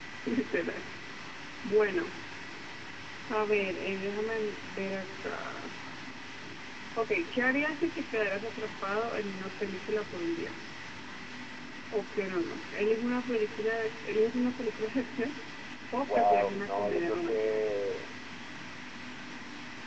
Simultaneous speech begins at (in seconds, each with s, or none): 16.1 s